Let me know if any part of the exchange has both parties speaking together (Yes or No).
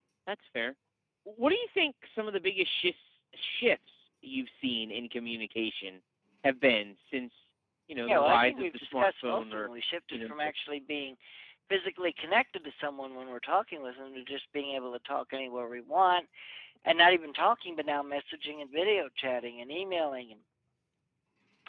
Yes